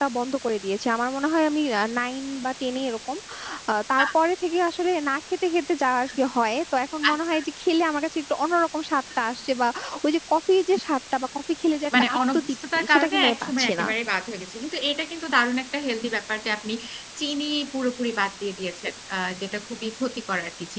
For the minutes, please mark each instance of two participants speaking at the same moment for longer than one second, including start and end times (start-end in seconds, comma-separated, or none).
12.0-13.8